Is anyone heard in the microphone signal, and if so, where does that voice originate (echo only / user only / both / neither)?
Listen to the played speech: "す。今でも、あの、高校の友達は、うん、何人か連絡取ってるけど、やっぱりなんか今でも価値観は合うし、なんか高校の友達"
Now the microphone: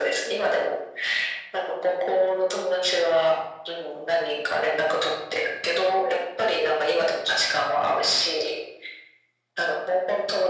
echo only